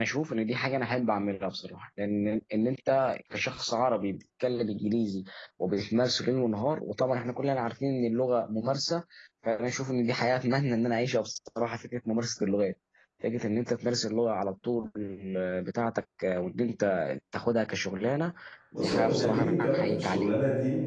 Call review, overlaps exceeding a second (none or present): present